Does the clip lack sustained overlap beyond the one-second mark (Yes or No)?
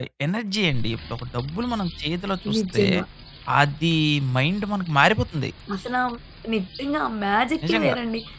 Yes